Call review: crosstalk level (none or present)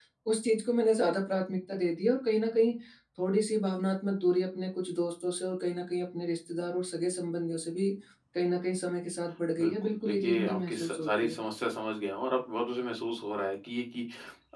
present